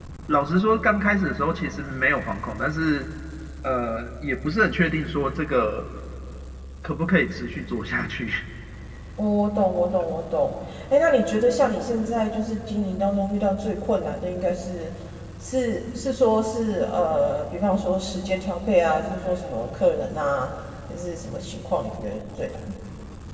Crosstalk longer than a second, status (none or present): none